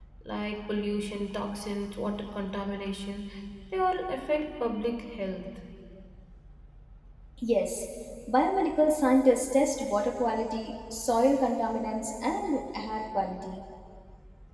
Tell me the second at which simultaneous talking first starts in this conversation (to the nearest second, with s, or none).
none